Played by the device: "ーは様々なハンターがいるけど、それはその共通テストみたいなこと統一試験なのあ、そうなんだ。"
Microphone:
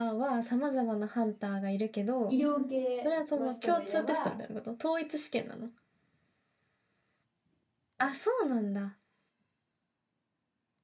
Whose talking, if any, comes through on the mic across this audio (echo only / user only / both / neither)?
both